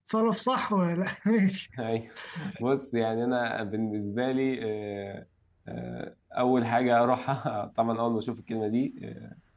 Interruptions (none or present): none